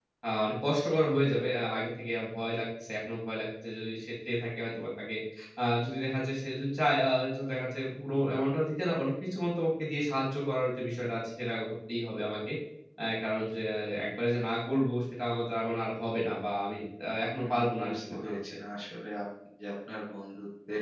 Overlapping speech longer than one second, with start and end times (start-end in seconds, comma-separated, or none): 17.3-18.5